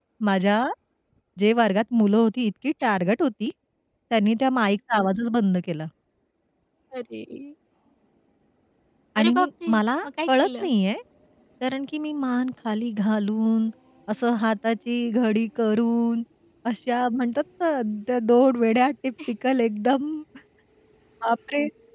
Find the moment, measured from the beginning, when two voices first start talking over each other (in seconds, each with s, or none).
9.2 s